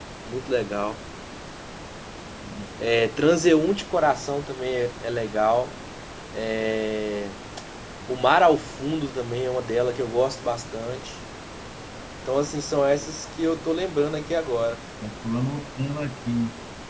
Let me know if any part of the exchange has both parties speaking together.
No

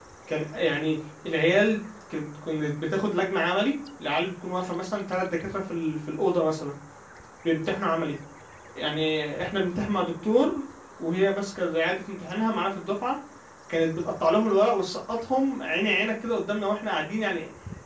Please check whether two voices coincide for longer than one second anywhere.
No

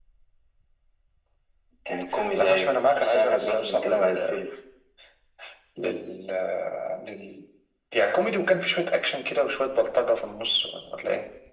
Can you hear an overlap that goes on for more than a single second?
Yes, from 2.3 s

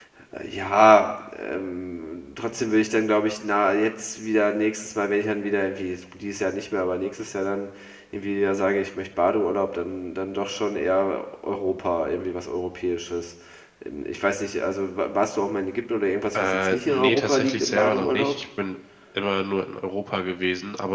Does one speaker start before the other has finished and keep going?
Yes, from 16.3 s

